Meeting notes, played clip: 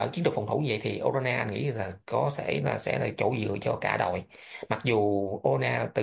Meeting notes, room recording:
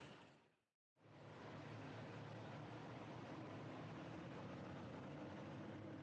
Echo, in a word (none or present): none